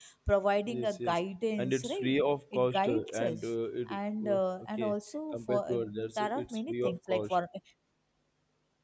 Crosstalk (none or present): present